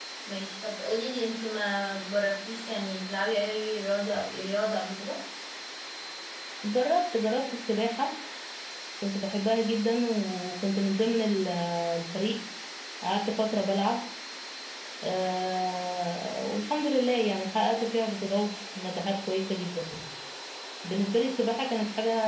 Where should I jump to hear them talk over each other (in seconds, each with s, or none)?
none